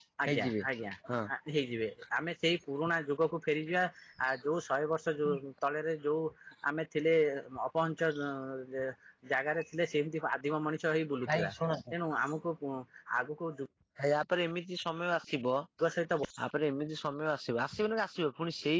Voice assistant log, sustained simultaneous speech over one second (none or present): none